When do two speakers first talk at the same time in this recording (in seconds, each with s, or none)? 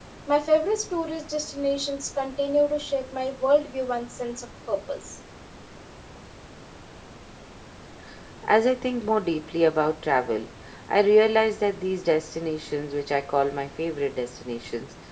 none